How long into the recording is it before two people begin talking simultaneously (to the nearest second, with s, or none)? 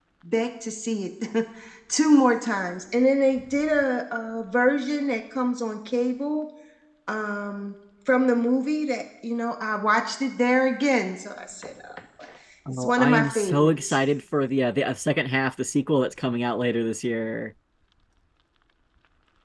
13 s